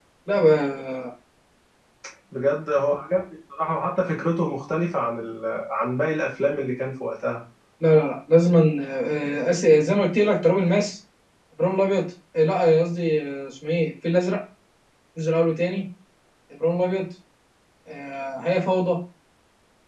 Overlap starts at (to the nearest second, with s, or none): none